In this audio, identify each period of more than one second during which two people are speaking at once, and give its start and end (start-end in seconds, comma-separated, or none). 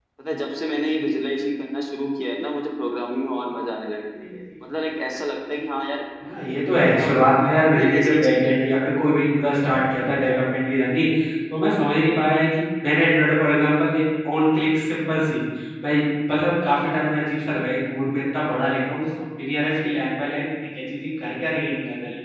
6.7-8.6